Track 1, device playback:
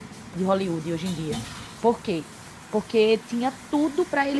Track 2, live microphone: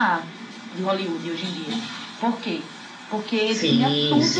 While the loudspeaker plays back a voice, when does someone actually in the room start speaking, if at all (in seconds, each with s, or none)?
3.4 s